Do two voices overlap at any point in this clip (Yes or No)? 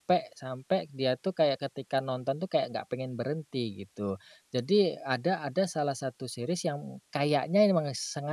No